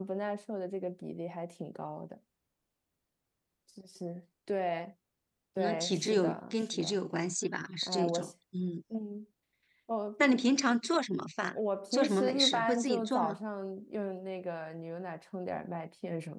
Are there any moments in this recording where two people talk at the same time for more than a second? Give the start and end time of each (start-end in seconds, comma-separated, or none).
5.6-7.0, 11.9-13.4